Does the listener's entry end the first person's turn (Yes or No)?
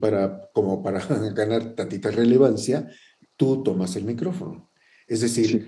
No